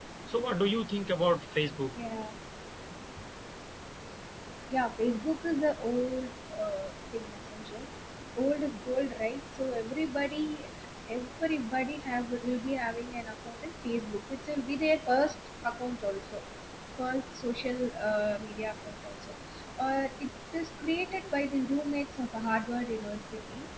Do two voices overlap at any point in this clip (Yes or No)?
No